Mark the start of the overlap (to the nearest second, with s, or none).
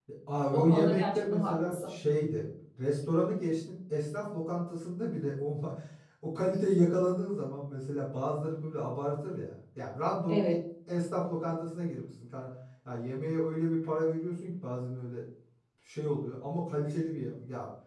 1 s